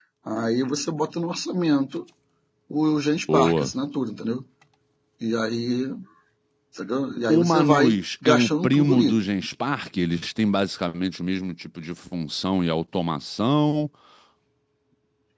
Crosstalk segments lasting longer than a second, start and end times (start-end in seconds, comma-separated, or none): 7.3-9.2